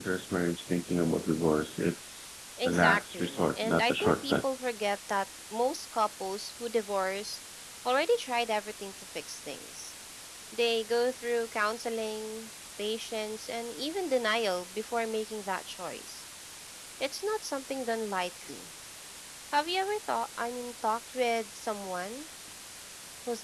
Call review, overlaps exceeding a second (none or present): present